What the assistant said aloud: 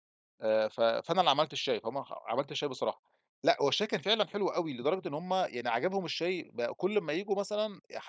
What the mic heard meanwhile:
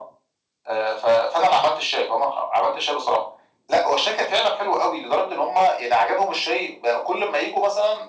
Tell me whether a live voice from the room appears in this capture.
No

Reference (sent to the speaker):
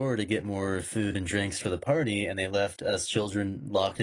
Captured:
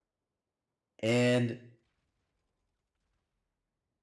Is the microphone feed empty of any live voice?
No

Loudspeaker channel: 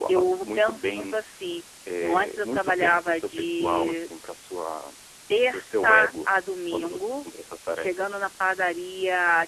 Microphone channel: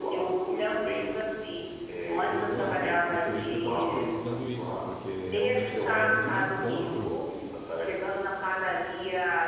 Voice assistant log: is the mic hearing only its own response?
No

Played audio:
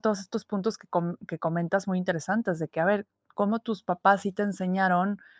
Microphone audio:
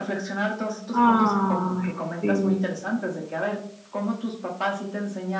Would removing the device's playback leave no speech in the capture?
No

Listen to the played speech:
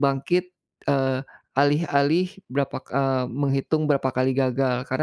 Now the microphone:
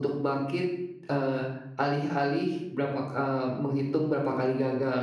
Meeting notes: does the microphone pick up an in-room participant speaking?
No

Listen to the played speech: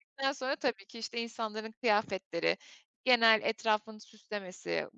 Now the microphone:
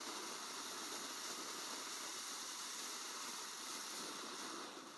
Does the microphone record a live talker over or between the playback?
No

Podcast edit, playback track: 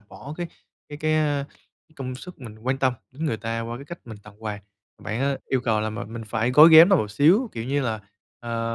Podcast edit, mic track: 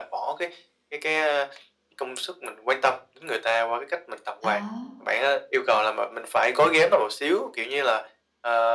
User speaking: Yes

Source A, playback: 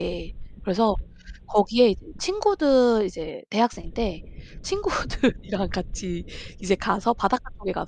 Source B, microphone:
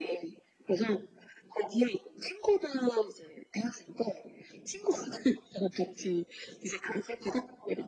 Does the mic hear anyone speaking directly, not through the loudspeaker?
No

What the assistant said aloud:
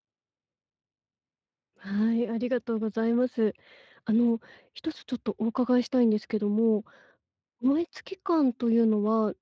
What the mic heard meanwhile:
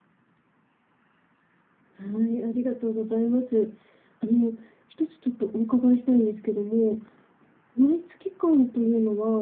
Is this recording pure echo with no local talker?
Yes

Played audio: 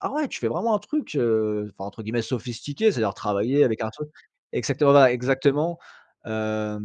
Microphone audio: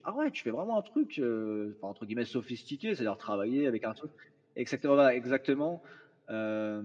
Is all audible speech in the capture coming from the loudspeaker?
Yes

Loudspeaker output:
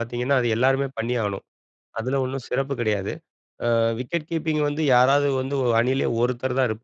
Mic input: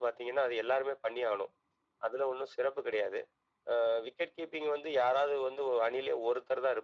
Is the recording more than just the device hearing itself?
No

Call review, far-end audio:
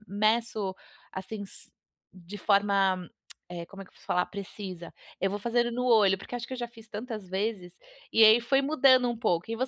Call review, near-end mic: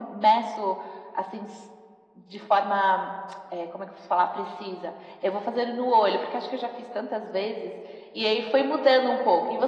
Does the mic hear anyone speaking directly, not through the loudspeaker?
No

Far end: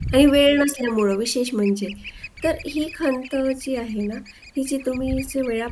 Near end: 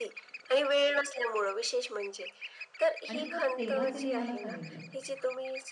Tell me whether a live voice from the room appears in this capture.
Yes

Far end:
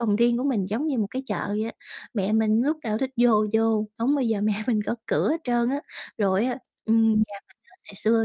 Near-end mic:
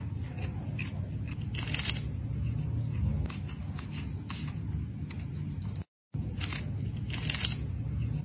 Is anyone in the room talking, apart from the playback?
No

